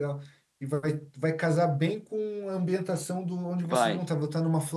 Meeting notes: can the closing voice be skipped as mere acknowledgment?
Yes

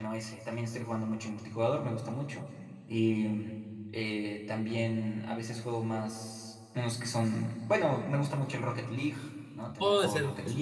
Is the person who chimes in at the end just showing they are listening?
No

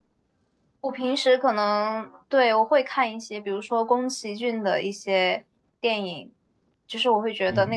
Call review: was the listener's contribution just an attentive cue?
Yes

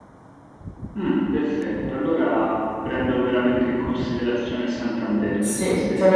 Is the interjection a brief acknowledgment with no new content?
No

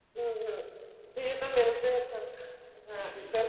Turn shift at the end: No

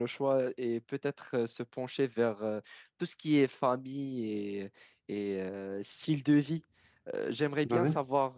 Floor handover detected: No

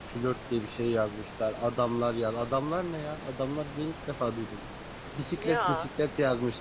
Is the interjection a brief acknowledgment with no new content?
Yes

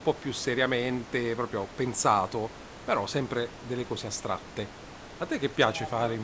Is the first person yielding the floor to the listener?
Yes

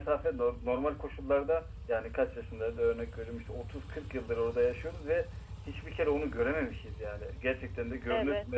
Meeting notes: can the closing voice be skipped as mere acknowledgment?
No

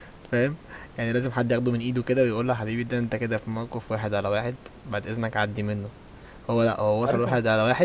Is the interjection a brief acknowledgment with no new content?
Yes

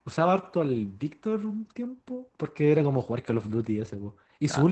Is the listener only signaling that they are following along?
Yes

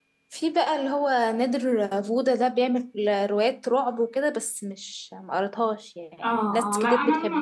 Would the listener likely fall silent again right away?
No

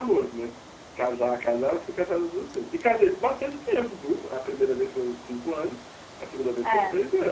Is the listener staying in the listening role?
Yes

